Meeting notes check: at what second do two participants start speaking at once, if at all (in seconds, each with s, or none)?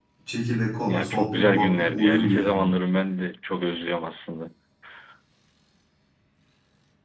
0.8 s